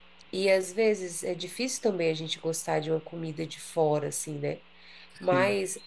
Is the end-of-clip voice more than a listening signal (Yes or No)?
No